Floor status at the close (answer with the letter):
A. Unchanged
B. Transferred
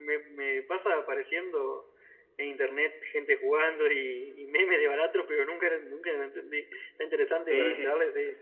B